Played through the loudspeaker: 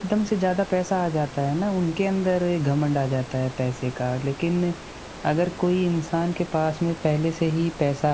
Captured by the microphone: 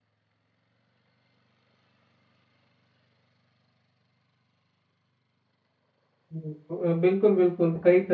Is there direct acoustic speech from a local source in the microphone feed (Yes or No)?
Yes